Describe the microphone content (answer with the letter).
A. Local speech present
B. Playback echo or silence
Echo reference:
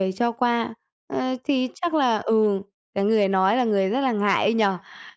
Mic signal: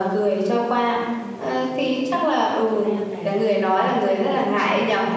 A